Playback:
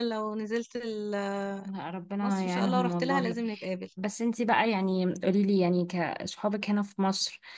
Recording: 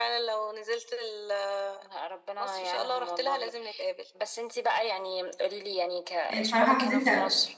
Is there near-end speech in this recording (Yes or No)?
Yes